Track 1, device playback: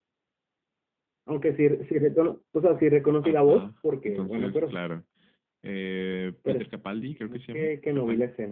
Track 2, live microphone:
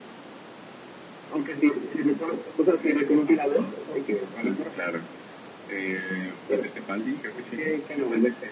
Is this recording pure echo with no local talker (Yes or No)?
Yes